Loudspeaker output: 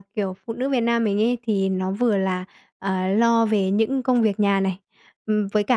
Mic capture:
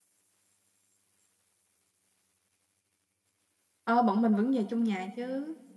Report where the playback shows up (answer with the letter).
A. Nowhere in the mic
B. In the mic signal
A